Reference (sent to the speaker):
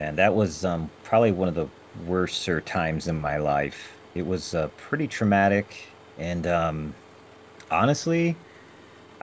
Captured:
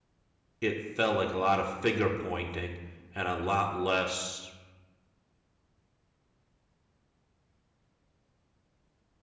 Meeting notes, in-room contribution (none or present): present